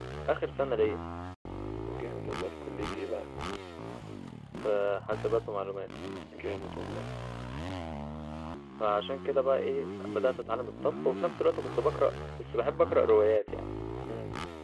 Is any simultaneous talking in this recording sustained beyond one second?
No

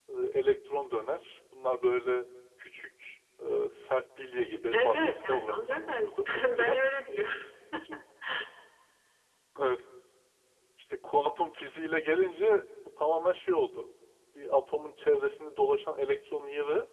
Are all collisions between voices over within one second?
No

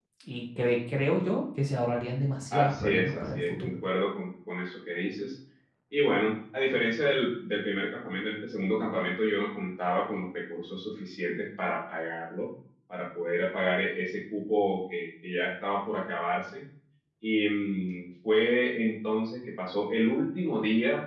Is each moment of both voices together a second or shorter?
No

